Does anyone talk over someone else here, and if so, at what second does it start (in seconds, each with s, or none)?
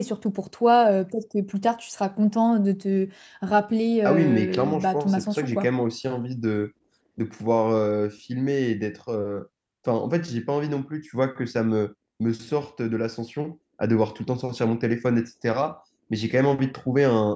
4.0 s